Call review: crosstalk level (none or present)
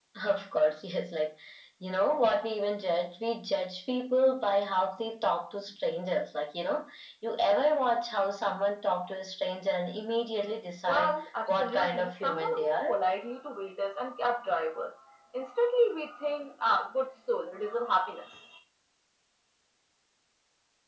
present